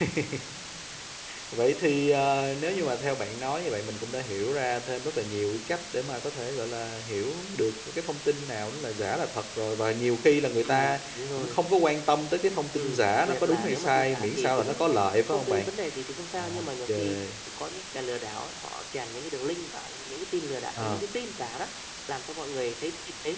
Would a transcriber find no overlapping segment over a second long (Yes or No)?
No